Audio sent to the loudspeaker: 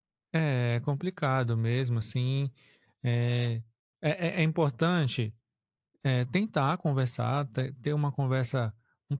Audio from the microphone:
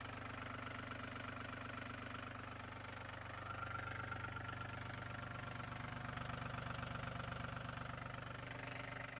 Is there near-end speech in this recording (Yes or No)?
No